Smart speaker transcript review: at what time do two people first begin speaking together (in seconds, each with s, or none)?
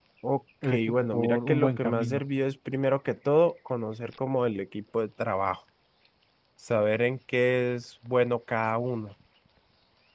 0.9 s